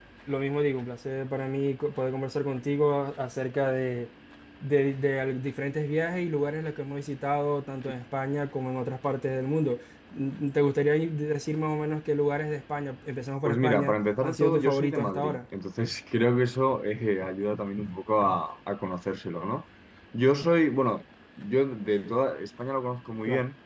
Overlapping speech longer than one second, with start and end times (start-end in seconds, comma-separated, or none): 13.4-15.4